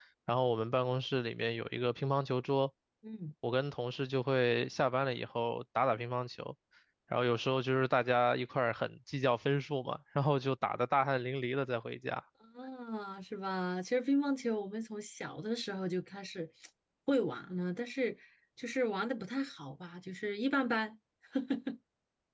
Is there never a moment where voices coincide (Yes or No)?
Yes